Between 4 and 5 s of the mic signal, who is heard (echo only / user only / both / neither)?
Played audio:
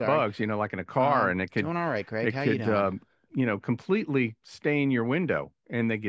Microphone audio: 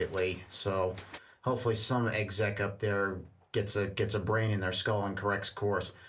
user only